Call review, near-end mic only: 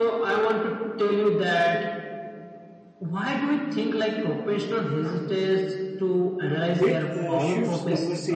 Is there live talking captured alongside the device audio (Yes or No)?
Yes